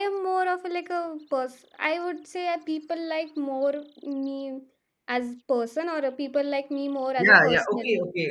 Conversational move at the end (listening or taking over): taking over